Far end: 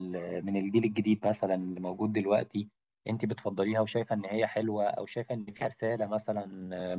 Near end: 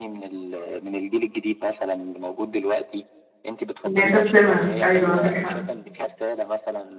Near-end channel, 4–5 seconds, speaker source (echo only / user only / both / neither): both